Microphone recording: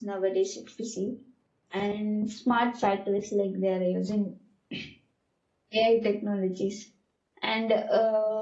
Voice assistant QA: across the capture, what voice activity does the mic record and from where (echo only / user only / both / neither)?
user only